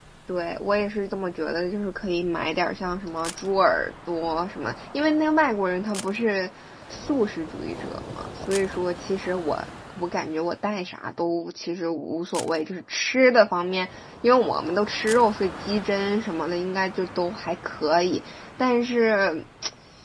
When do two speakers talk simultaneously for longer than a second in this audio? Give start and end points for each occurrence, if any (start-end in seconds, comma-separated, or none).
none